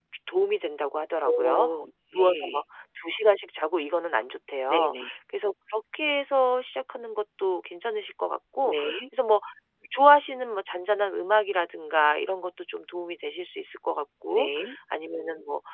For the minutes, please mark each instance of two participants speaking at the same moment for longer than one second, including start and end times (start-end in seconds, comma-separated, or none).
none